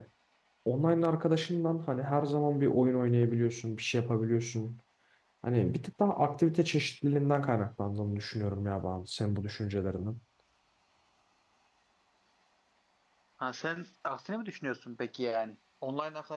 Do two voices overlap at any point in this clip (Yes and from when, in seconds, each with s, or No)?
No